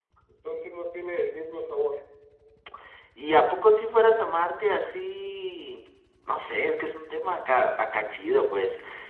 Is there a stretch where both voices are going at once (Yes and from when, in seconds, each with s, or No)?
No